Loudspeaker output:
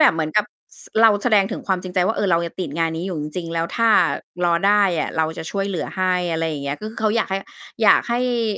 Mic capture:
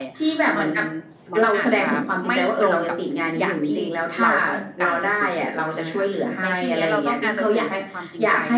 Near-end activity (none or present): present